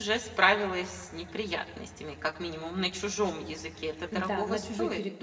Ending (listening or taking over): taking over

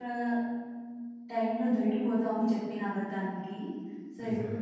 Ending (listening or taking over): listening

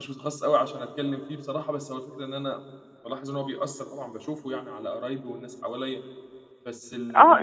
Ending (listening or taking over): taking over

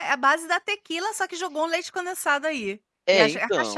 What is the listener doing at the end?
taking over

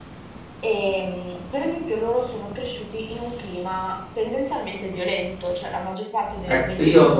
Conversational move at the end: taking over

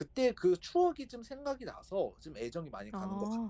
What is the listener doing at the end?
taking over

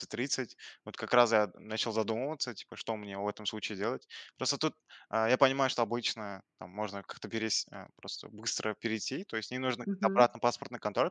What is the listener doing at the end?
listening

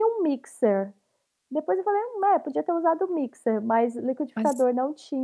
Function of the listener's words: listening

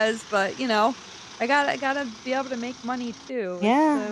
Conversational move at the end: taking over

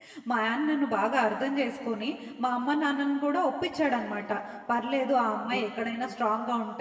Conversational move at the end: listening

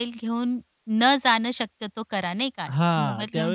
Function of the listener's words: taking over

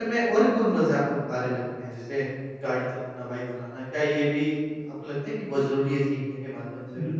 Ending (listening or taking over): taking over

